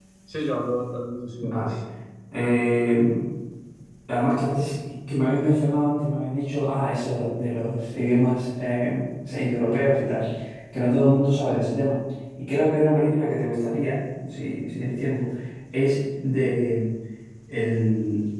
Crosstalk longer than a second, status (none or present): none